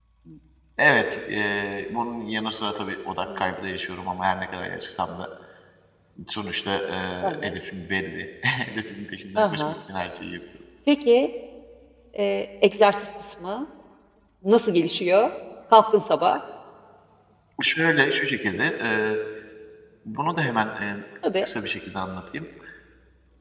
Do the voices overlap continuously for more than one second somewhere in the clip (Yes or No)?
No